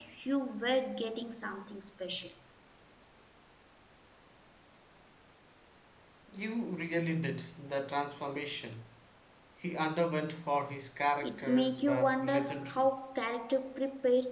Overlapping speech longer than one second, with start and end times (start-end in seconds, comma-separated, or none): 11.2-12.9